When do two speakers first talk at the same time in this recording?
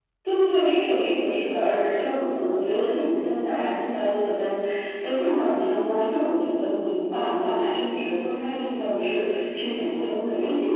none

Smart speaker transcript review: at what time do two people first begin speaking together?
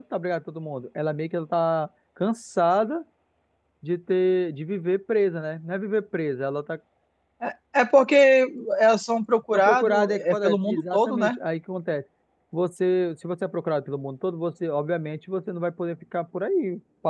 10 s

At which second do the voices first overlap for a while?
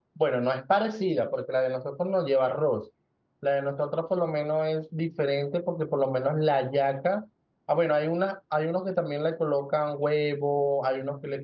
none

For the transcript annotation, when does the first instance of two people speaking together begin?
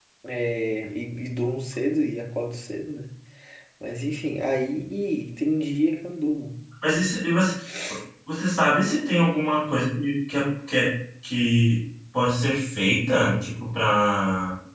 none

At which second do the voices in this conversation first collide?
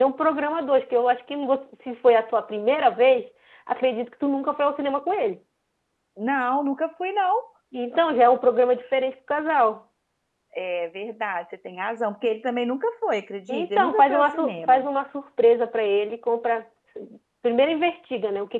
13 s

